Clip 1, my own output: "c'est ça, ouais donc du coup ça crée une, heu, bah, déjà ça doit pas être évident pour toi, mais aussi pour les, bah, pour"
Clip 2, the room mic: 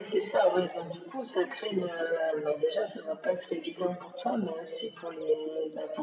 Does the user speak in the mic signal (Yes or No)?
No